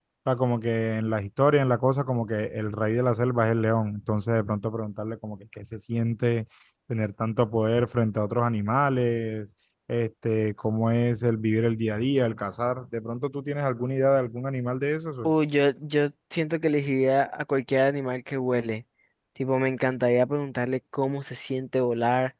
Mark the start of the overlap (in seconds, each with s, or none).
none